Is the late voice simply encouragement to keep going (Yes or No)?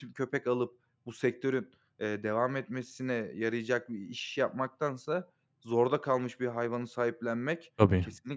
Yes